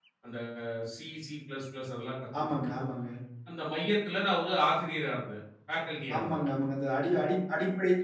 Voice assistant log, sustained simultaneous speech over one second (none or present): none